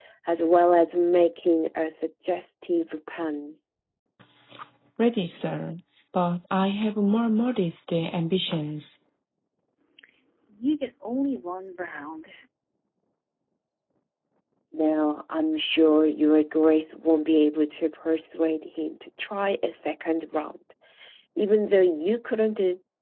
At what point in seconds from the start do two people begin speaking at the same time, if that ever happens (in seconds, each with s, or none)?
none